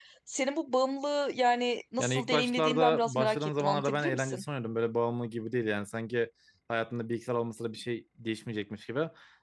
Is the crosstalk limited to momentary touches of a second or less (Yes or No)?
No